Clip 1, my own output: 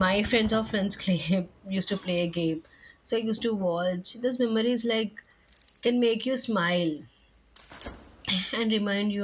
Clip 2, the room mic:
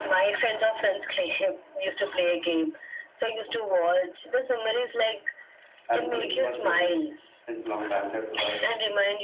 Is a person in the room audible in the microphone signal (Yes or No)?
Yes